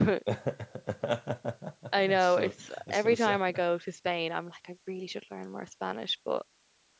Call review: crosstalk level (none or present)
present